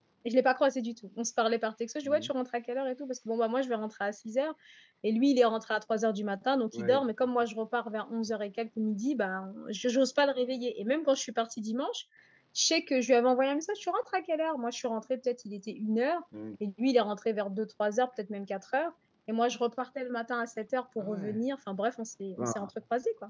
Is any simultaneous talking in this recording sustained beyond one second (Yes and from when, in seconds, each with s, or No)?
No